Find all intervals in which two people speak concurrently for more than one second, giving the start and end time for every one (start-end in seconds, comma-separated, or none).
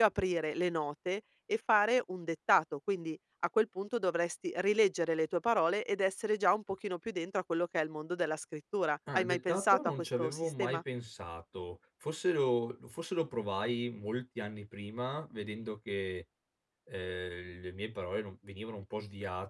9.1-10.8